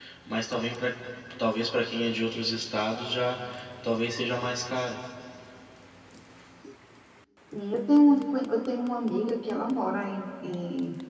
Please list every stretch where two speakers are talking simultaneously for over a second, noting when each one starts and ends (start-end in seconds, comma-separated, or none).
none